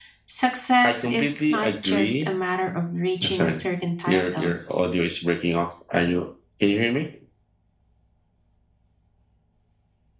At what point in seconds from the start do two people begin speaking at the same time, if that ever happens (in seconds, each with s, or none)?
0.8 s